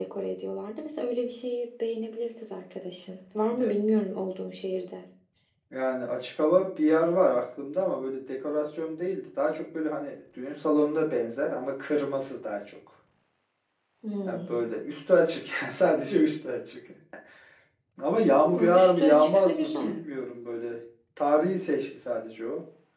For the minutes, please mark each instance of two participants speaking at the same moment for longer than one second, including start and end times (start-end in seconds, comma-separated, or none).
18.4-20.0